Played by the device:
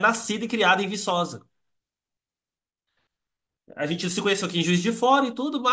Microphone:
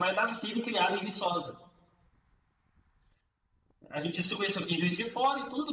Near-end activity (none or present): none